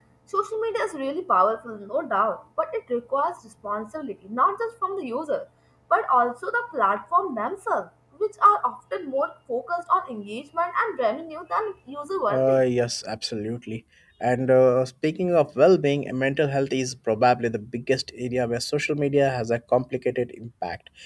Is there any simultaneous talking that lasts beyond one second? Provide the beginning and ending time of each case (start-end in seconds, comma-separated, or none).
none